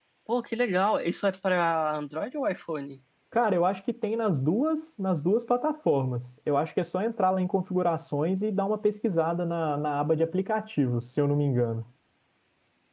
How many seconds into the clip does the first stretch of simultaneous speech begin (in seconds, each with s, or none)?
none